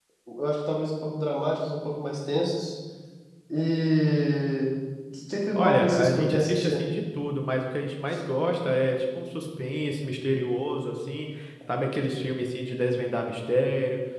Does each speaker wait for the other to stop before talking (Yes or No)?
No